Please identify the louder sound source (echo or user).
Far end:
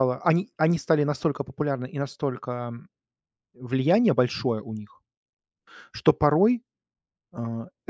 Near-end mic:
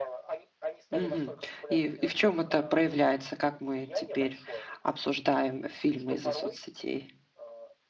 user